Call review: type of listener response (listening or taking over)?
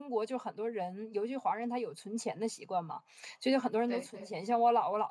listening